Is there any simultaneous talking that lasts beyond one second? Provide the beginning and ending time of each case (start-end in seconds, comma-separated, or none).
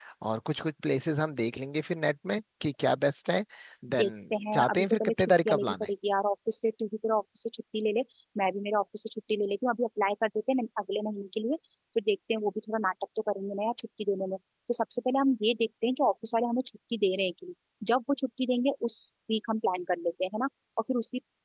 4.5-5.9